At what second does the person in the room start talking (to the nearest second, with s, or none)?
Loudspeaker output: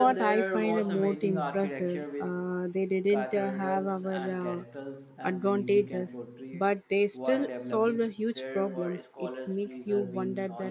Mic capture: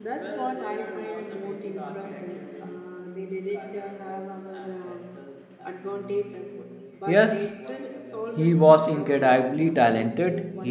7 s